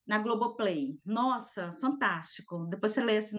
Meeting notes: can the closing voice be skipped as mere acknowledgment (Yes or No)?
Yes